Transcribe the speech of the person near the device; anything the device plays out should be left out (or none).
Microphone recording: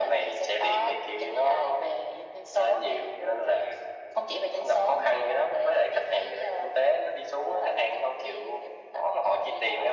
none